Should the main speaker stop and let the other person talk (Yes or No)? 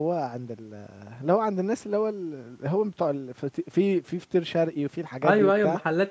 Yes